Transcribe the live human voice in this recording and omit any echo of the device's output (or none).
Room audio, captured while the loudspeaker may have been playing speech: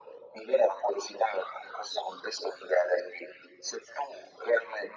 none